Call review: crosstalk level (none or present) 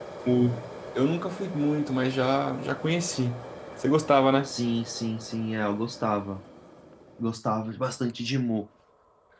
none